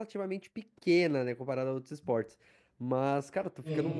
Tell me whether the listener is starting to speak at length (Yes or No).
No